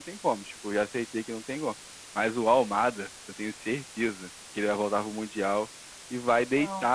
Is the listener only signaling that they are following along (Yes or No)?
Yes